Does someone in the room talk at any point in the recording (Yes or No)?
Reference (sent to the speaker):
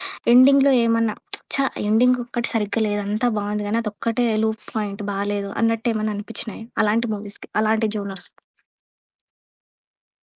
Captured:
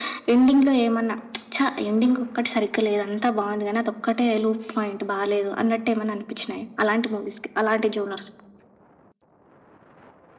No